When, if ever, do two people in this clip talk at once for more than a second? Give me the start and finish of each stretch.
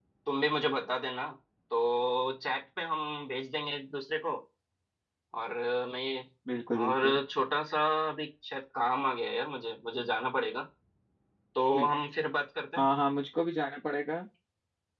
none

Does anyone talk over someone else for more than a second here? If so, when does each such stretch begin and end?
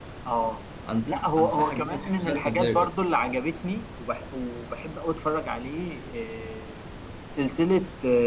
1.1-2.7

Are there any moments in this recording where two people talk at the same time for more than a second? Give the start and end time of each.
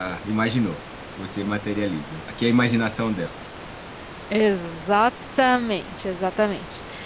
none

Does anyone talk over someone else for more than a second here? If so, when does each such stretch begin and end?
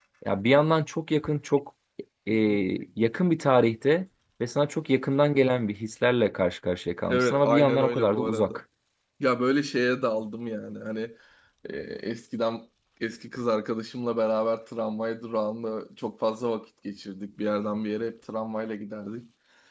7.1-8.5

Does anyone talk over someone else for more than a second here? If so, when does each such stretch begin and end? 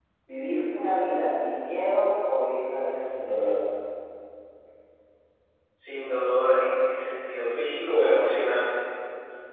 none

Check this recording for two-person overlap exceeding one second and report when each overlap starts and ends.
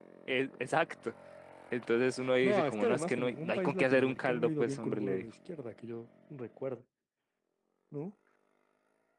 2.4-5.2

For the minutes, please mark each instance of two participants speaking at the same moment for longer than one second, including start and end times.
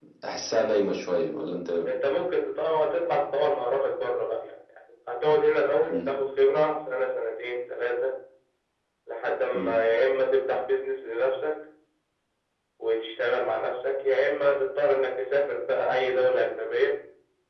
none

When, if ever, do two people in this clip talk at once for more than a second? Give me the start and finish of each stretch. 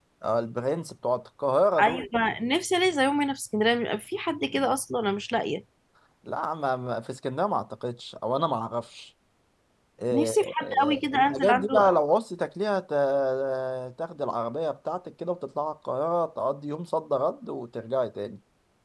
10.1-11.7

